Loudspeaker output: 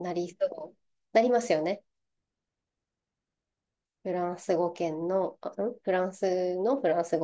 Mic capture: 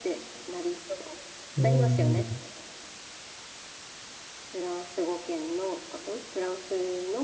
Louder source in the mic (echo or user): user